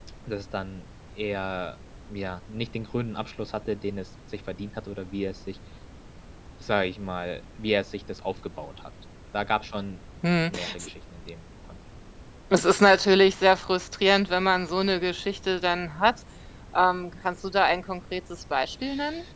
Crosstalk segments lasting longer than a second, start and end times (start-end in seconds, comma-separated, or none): none